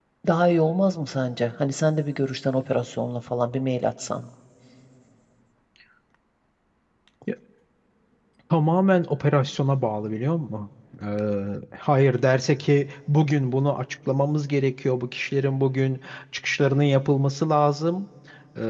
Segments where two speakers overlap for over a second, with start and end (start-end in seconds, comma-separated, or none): none